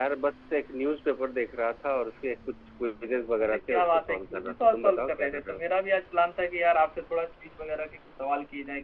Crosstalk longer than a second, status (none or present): present